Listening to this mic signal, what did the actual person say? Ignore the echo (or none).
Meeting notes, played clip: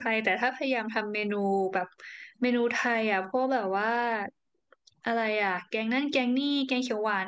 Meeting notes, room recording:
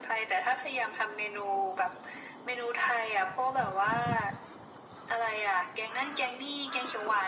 none